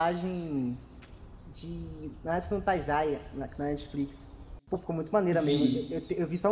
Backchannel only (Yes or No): Yes